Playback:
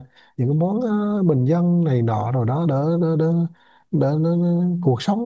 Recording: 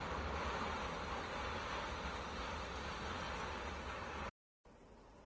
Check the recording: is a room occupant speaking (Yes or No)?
No